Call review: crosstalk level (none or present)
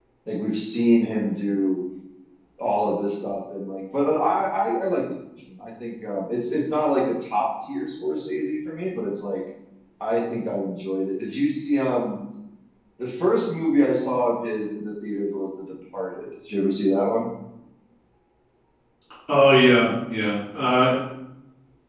none